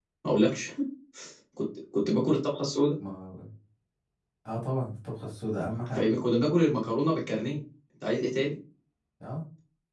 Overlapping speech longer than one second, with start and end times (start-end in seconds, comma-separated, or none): none